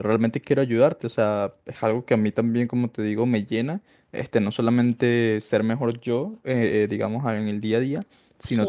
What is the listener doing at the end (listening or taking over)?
listening